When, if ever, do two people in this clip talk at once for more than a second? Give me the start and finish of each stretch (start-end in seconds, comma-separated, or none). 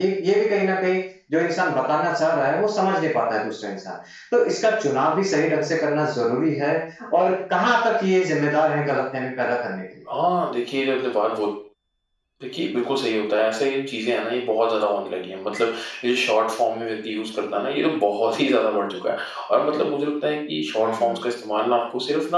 none